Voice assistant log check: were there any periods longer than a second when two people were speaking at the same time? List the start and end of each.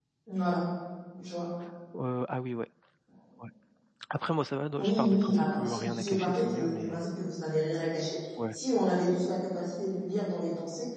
4.8-7.0

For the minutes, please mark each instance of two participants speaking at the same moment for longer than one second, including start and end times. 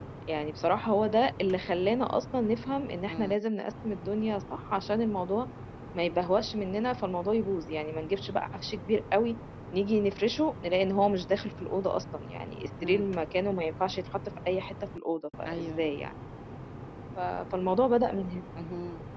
none

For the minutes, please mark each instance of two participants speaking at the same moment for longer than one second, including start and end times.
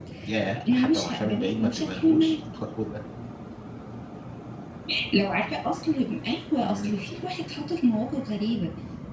0.7-2.3

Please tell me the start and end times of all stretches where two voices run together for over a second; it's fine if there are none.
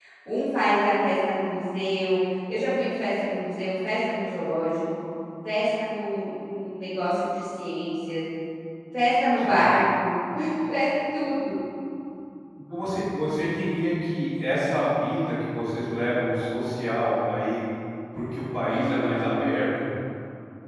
none

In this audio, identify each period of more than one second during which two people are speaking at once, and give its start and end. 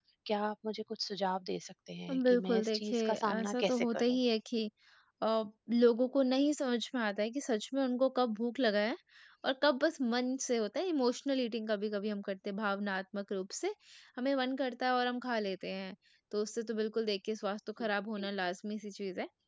2.1-4.2

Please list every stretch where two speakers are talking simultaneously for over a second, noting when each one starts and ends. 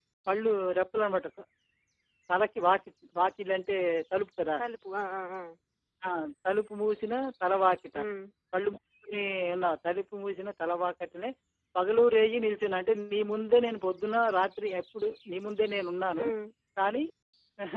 none

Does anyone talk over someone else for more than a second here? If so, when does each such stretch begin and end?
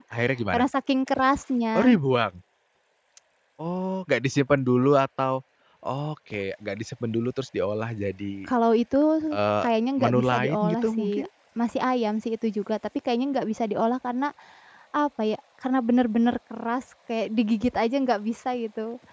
10.0-11.3

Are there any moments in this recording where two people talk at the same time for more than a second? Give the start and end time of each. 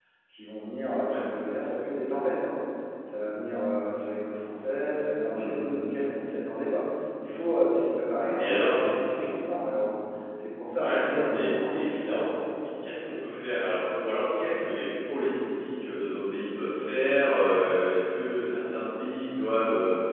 10.8-12.3

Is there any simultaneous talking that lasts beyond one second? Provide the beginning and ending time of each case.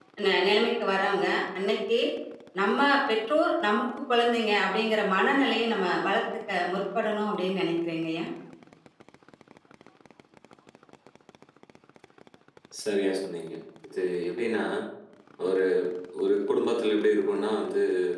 none

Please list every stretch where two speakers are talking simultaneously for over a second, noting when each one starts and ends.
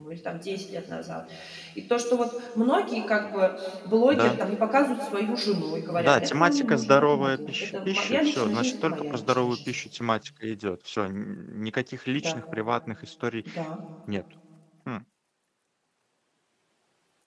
6.0-9.8

